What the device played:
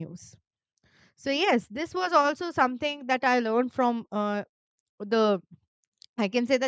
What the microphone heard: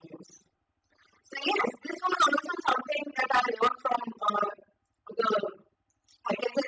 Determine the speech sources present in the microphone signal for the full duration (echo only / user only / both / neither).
echo only